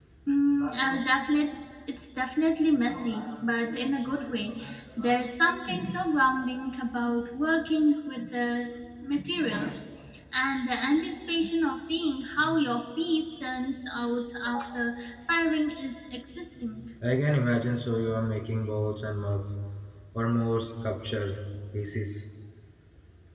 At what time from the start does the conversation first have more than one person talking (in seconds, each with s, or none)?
none